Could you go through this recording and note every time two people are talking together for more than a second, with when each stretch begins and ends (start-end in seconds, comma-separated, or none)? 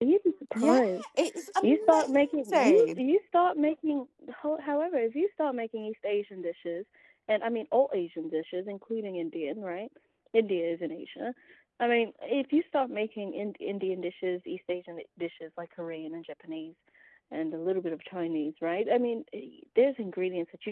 1.6-3.0